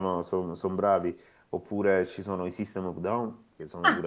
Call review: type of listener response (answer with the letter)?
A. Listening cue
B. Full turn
A